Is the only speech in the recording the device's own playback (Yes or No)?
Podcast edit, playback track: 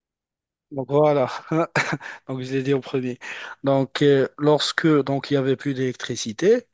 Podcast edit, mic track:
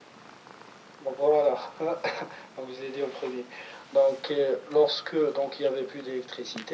Yes